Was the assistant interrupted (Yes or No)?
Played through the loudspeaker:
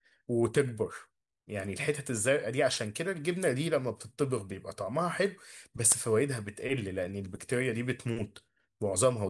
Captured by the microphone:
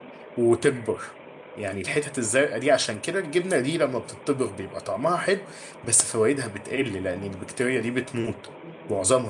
No